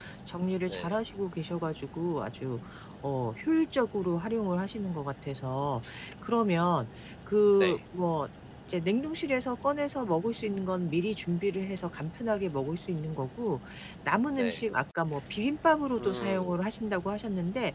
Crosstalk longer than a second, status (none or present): none